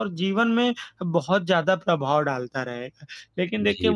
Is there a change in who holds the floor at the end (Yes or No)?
No